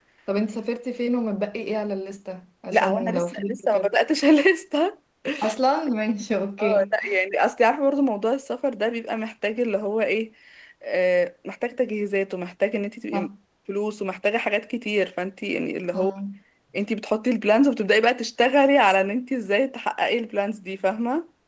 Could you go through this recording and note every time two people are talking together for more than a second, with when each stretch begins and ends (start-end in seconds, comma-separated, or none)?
2.7-3.9